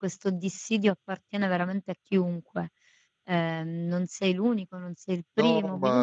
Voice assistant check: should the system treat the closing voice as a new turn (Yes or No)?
Yes